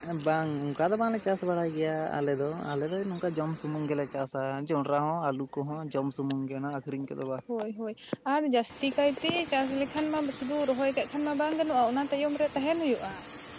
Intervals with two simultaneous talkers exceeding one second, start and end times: none

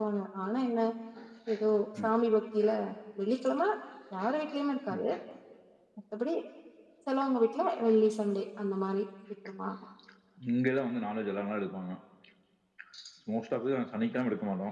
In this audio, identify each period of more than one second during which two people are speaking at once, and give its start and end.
none

